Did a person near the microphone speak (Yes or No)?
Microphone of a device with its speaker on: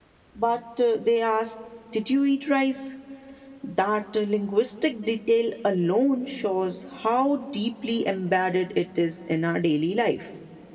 Yes